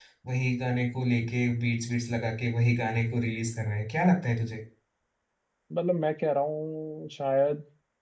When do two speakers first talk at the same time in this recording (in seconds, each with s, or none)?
none